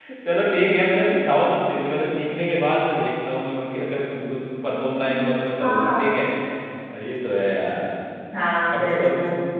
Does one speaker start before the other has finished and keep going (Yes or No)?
Yes